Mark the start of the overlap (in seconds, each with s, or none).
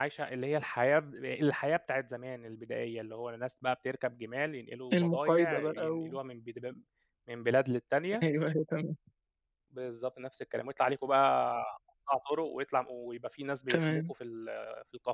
4.9 s